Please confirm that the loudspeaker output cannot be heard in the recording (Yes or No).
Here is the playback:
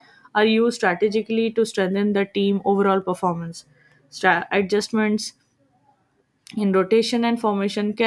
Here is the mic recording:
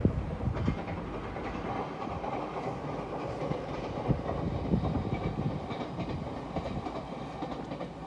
Yes